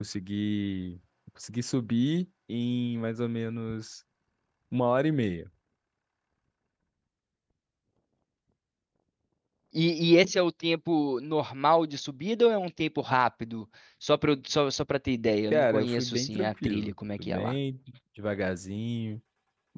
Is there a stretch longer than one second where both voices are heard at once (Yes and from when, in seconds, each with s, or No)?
Yes, from 15.5 s